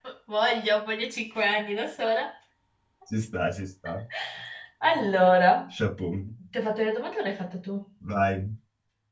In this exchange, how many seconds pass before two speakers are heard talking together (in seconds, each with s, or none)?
none